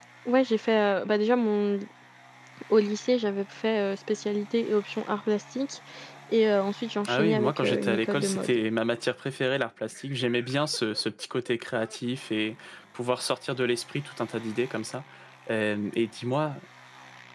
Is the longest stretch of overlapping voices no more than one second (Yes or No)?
No